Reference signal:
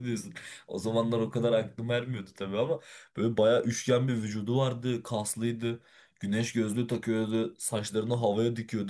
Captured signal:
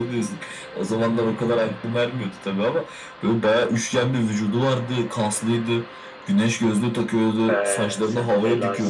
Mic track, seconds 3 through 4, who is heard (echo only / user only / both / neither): echo only